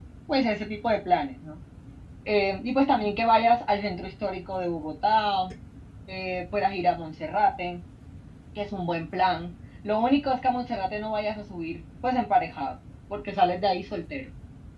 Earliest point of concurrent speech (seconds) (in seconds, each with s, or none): none